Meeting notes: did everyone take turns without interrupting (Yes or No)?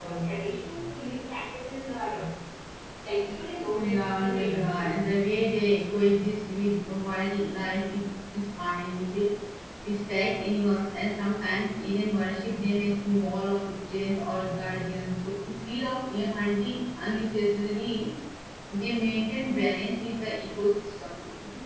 No